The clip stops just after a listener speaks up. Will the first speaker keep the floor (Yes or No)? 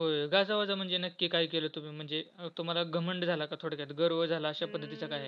No